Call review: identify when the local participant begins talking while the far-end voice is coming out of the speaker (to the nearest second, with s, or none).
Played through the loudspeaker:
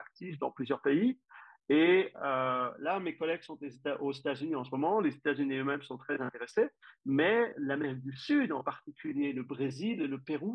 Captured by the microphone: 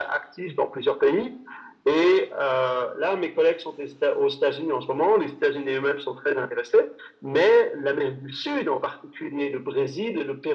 none